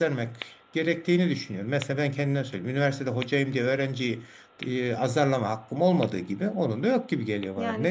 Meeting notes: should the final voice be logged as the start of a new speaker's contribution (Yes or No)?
Yes